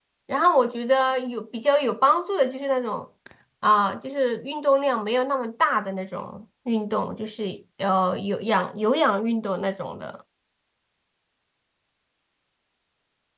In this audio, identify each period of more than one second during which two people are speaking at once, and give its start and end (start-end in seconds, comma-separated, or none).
none